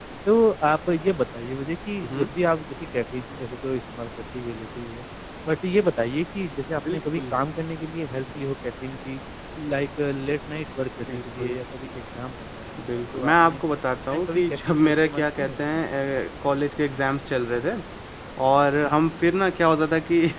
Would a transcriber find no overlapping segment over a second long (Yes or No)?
No